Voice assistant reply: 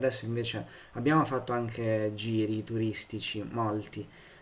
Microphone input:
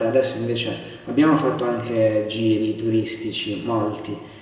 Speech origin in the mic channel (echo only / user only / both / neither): echo only